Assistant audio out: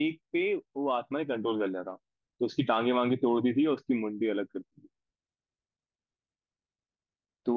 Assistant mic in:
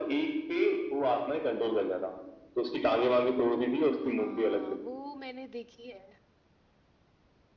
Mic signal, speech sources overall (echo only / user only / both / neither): both